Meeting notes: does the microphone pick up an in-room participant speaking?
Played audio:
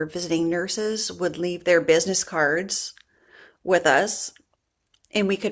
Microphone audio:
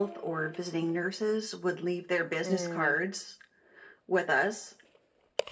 Yes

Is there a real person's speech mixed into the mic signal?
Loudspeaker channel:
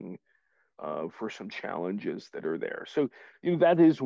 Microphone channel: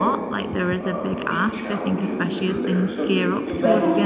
Yes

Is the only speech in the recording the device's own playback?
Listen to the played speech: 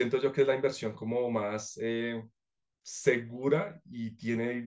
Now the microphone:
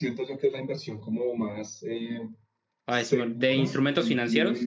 No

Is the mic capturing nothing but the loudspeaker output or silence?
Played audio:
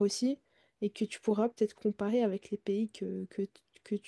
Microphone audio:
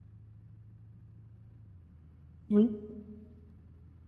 No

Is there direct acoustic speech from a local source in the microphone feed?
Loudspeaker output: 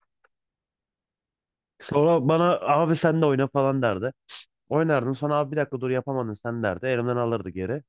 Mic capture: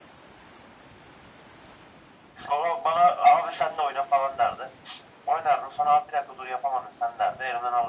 No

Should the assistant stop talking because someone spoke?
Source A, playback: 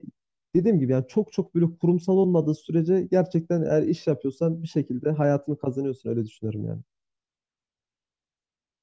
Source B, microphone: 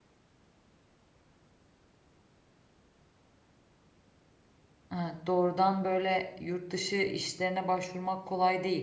Yes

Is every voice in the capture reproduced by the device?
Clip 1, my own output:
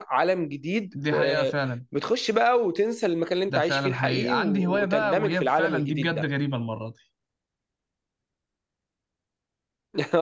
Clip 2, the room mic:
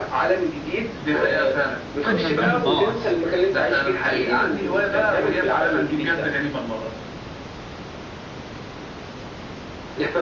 No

